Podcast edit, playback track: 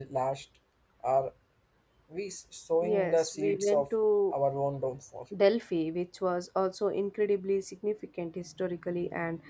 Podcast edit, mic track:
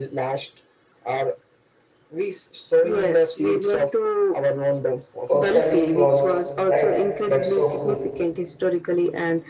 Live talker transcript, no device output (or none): Orcali was, right? That's so cool.